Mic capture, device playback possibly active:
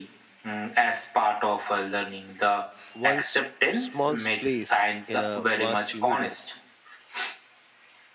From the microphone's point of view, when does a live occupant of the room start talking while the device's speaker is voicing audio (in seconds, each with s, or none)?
2.9 s